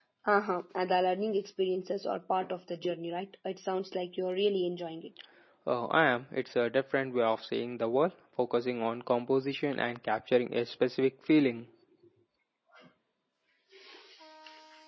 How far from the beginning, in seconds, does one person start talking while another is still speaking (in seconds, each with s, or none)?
none